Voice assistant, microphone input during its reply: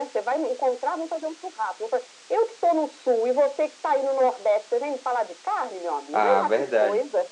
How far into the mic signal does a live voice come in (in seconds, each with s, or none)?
6.1 s